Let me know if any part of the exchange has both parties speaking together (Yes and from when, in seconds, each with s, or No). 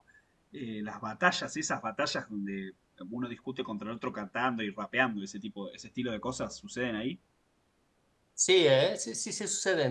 No